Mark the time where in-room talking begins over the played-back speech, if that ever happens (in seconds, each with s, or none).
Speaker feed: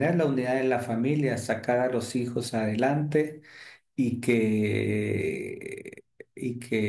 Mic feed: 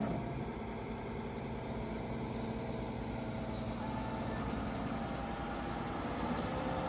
none